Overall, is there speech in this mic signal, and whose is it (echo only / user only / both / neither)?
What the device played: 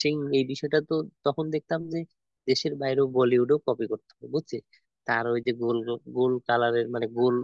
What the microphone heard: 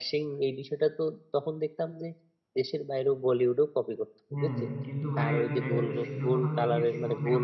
both